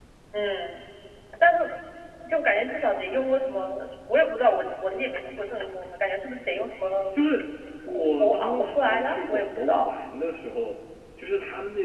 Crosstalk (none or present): present